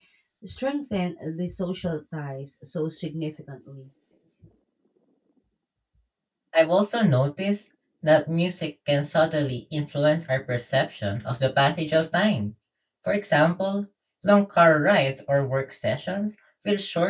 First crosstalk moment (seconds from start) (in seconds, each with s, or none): none